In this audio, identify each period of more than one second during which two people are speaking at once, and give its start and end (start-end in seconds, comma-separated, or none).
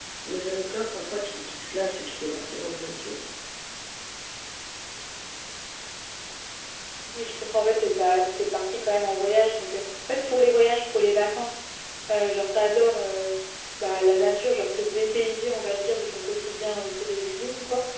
none